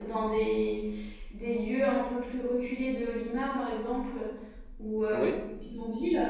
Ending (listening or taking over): listening